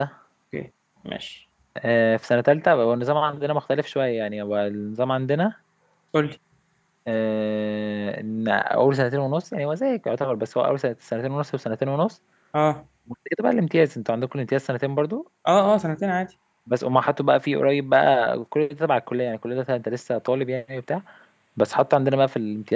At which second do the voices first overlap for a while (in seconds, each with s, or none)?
none